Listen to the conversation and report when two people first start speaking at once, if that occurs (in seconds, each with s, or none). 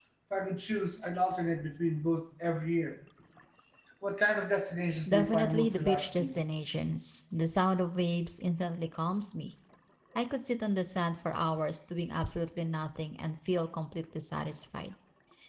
5.1 s